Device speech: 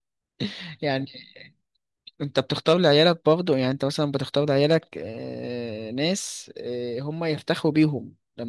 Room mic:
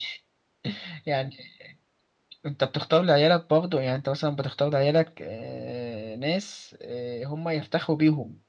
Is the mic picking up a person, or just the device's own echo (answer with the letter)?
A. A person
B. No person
B